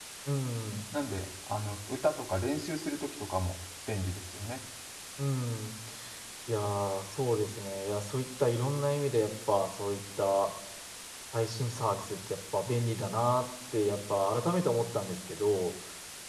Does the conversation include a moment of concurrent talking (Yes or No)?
No